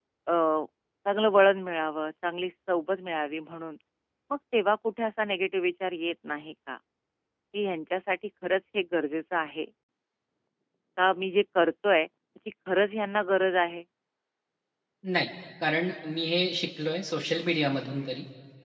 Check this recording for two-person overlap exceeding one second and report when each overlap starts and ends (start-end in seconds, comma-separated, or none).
none